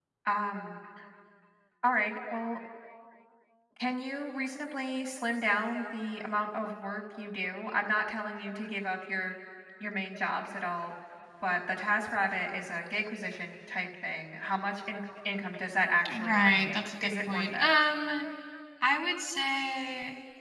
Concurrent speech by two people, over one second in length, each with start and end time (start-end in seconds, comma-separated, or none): 16.1-17.7